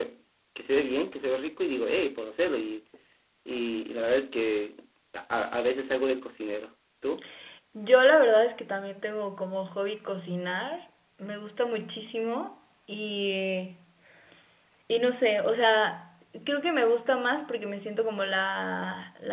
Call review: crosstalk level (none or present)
none